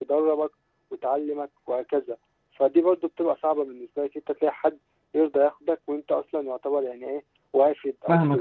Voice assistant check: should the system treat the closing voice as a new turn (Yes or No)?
Yes